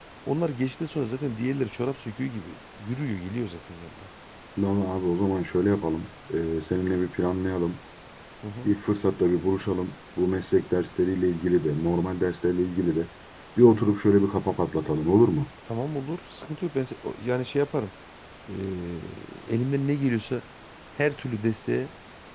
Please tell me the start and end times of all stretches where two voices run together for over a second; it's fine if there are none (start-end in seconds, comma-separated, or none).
none